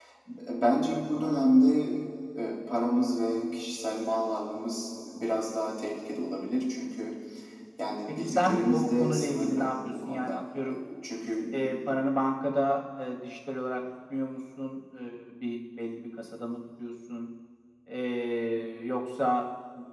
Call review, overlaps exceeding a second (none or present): present